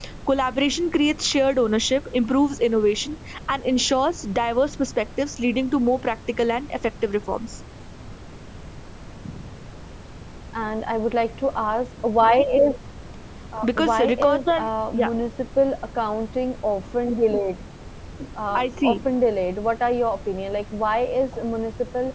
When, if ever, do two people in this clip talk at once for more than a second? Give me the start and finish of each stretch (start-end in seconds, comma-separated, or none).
13.6-15.1